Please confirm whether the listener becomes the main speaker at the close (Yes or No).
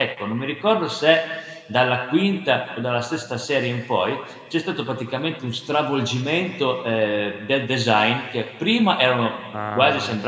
No